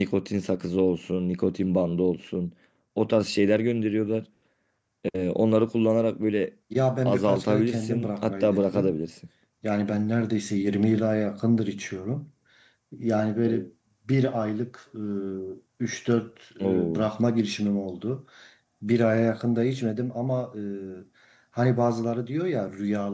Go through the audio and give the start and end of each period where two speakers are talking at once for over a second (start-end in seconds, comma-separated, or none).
7.0-9.0